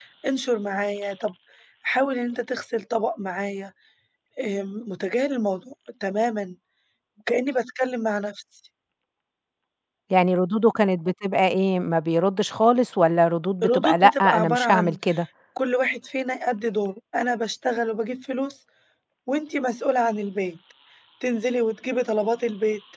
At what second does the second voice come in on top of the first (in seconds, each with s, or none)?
13.6 s